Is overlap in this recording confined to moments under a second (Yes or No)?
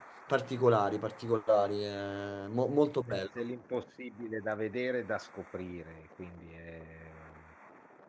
Yes